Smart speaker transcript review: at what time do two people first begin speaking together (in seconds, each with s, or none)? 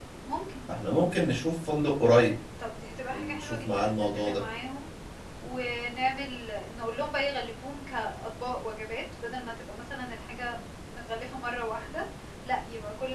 3.1 s